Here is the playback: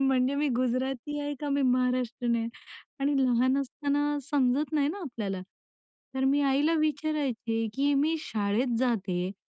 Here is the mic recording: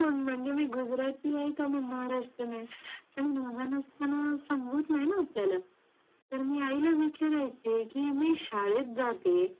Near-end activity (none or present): none